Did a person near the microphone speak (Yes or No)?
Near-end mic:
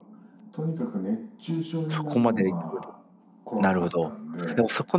Yes